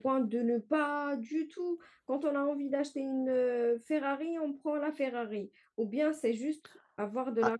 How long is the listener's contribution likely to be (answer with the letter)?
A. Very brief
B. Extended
B